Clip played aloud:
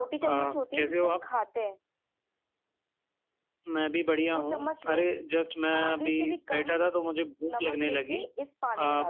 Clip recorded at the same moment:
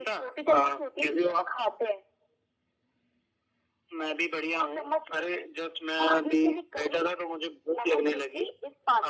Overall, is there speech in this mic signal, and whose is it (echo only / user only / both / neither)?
echo only